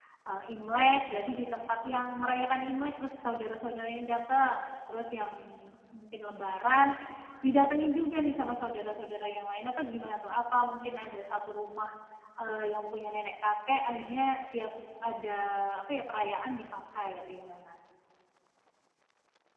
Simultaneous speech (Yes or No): No